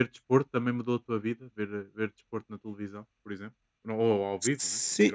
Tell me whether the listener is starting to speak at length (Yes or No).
Yes